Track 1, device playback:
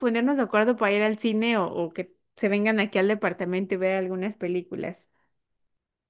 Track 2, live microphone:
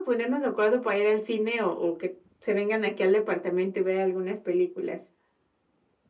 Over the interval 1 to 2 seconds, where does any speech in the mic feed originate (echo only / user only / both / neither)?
echo only